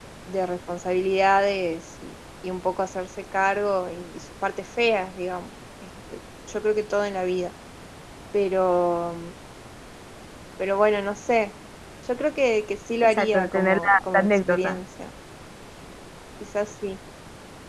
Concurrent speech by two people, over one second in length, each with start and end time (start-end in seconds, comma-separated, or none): 13.0-14.8